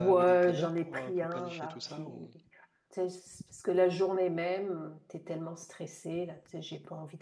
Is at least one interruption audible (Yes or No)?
Yes